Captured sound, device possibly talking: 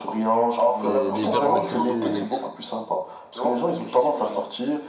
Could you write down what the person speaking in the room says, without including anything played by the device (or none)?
C'est l'hiver, on est surtout